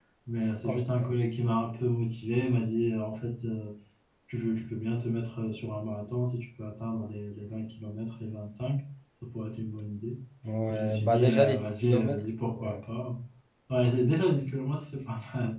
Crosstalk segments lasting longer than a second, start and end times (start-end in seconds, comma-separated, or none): 10.7-12.2